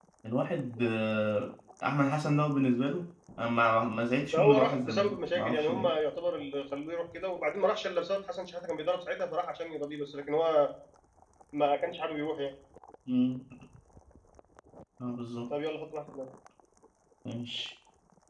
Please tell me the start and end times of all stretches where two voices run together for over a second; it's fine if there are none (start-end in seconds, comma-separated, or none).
4.3-5.9